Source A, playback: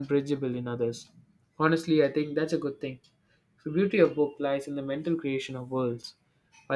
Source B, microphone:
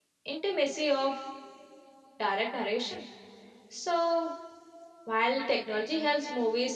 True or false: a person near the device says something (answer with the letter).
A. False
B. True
B